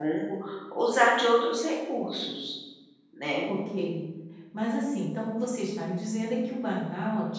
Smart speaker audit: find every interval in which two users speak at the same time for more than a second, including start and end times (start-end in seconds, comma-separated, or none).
none